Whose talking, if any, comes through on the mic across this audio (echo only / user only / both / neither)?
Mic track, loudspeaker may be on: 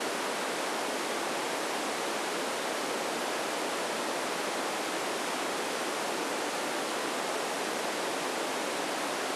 neither